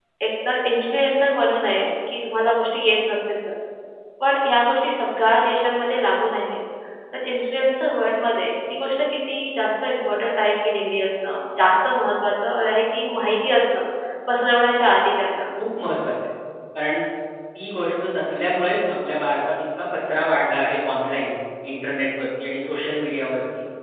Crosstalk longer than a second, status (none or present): none